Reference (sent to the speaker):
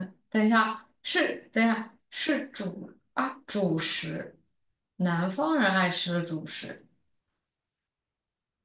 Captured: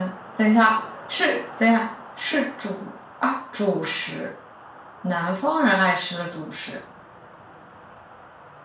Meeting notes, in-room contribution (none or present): none